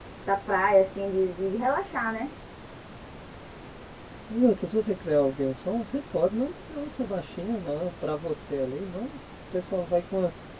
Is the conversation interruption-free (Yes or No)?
Yes